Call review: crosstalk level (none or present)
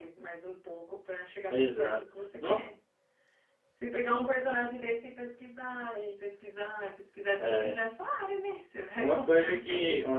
present